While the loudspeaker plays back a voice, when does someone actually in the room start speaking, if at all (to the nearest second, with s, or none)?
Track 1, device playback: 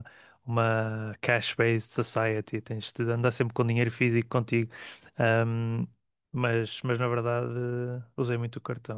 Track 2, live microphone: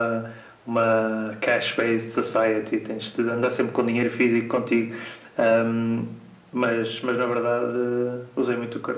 none